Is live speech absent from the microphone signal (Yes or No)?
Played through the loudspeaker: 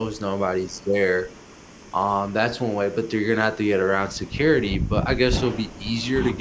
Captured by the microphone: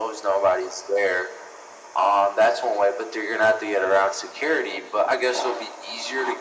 Yes